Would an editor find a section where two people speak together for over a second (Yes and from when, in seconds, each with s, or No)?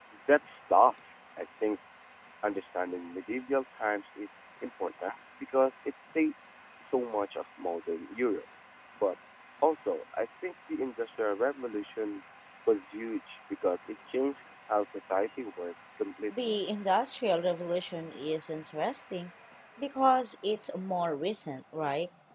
No